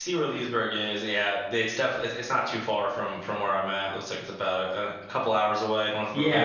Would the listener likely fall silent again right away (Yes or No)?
No